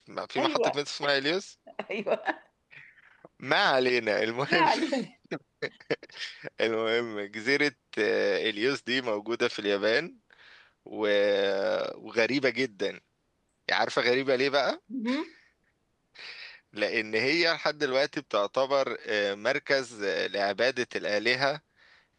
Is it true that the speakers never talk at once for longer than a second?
Yes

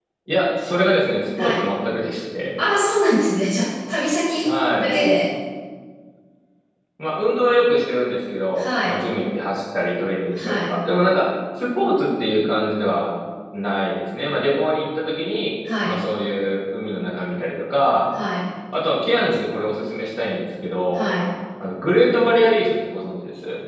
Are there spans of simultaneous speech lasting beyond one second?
No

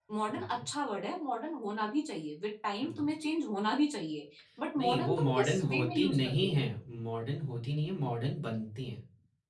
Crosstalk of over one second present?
Yes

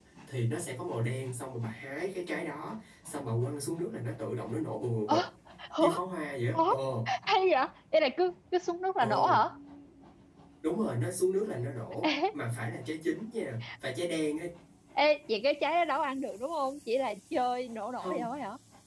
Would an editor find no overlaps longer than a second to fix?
Yes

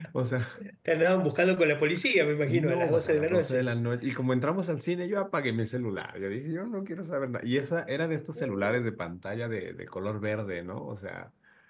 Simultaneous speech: Yes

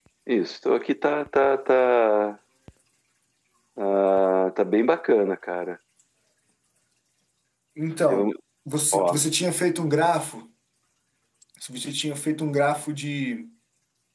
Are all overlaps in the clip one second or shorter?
Yes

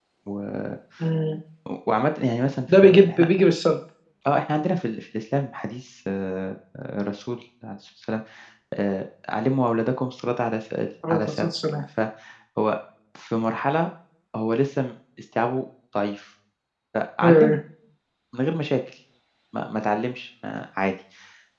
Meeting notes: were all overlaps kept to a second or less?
Yes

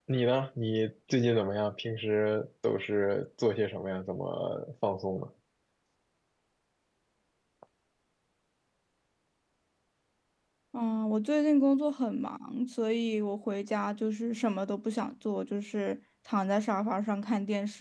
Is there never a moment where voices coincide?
Yes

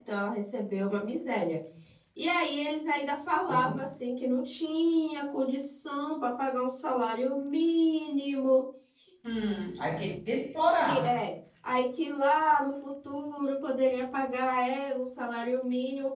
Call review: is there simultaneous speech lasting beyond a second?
No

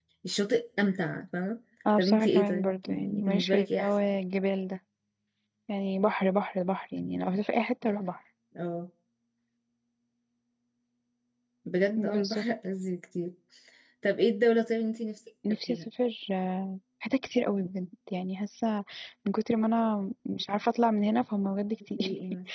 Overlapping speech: Yes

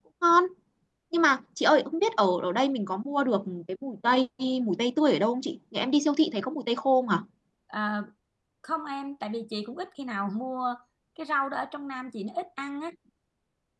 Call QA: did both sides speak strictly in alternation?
Yes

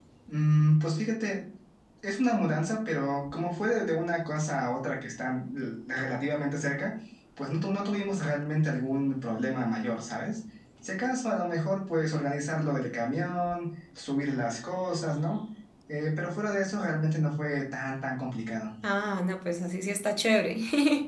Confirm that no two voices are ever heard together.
Yes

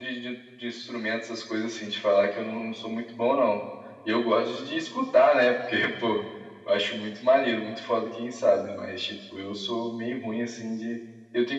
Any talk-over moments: No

